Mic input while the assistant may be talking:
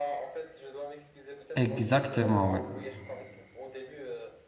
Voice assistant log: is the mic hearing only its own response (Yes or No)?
No